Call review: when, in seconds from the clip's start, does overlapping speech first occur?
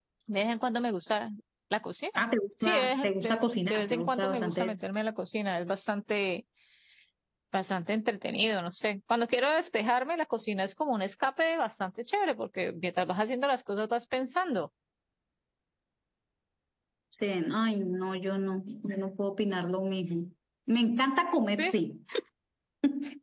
3 s

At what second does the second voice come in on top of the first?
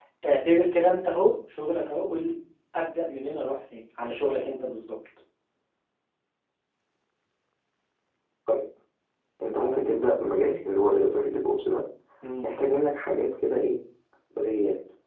none

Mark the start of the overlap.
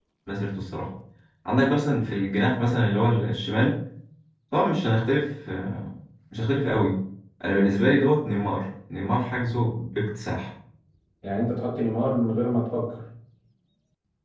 none

